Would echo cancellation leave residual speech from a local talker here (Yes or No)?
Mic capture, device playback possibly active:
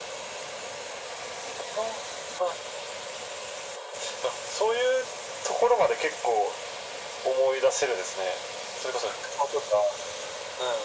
No